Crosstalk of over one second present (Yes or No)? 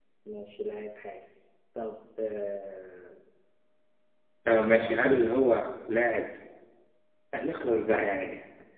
No